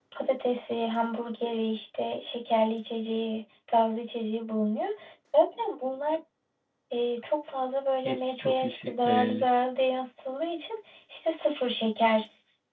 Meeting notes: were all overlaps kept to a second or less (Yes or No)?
No